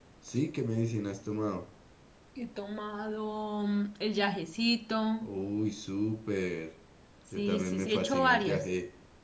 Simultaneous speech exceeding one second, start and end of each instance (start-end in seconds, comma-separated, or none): 7.4-8.7